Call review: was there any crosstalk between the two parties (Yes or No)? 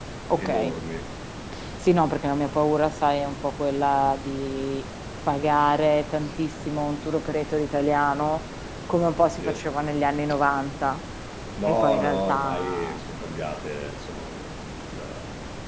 Yes